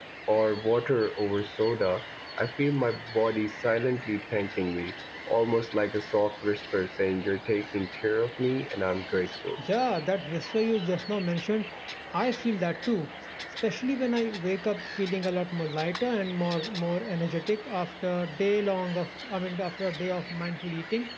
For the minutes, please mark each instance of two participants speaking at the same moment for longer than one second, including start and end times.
none

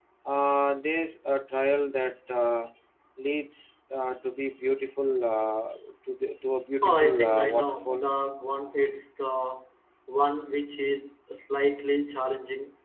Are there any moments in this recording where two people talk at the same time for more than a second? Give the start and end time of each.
6.8-8.0

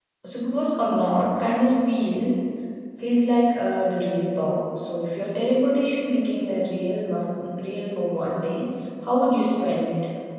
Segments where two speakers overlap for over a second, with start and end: none

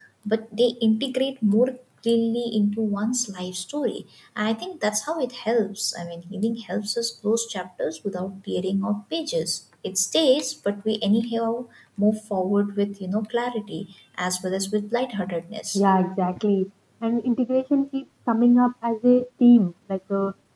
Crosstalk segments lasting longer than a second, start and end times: none

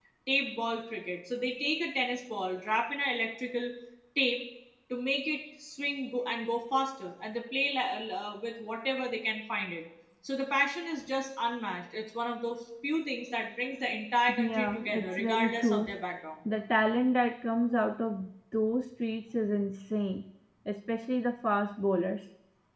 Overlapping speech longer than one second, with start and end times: 14.4-16.0

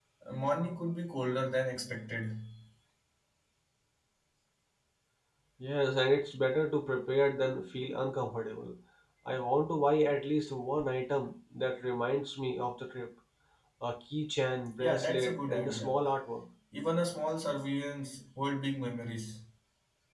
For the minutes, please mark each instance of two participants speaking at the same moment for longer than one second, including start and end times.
14.8-16.0

